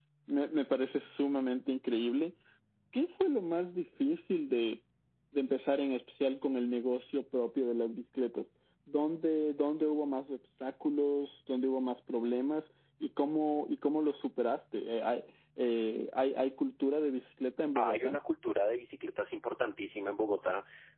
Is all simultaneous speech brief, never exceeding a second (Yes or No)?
Yes